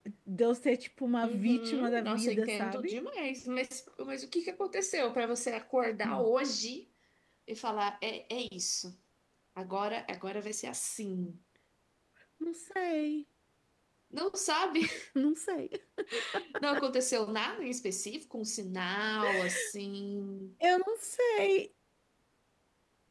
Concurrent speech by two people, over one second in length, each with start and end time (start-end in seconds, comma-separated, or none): 1.2-2.9